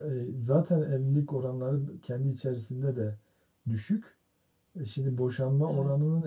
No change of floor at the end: Yes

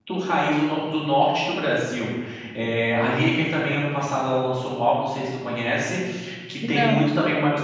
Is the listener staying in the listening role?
Yes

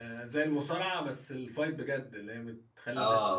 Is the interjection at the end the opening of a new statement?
Yes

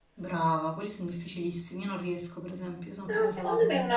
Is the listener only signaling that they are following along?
No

